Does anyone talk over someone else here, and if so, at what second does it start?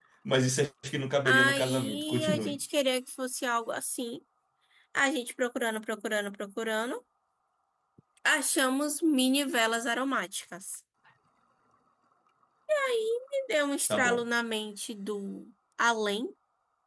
1.2 s

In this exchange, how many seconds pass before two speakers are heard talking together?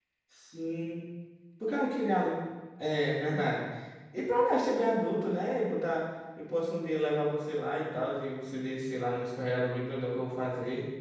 none

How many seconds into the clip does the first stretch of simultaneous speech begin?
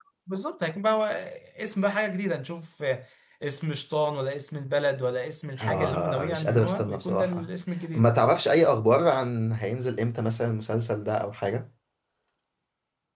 5.6 s

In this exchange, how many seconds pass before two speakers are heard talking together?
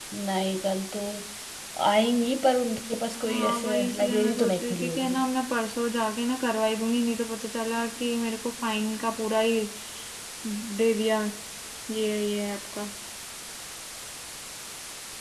3.1 s

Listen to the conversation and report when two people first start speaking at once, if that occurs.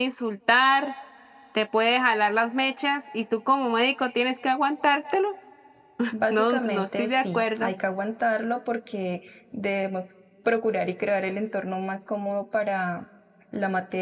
6.3 s

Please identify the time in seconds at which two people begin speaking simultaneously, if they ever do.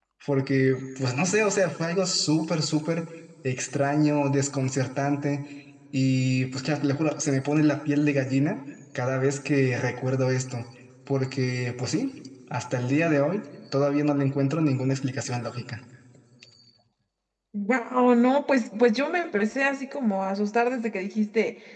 none

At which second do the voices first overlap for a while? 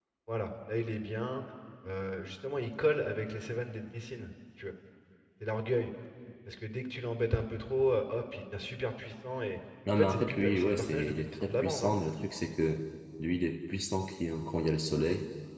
9.9 s

